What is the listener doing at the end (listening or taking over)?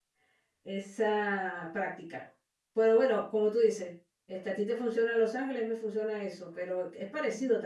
listening